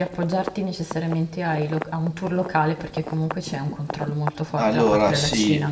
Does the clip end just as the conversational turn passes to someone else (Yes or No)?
Yes